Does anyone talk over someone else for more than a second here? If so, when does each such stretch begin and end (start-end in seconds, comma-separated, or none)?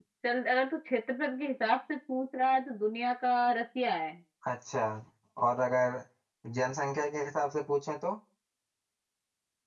none